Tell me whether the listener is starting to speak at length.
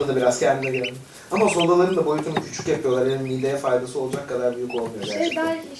Yes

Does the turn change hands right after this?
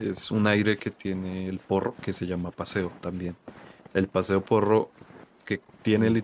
No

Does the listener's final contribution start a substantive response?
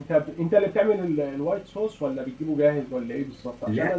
No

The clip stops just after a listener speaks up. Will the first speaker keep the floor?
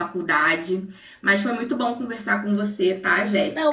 No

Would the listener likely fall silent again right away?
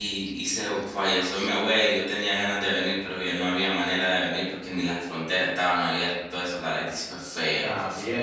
No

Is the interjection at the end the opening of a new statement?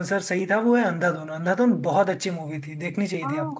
Yes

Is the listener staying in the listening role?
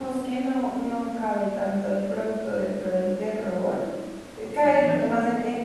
Yes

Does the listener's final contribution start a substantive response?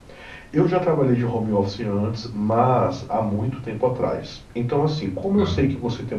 No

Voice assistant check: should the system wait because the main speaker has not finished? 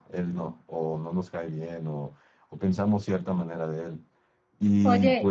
No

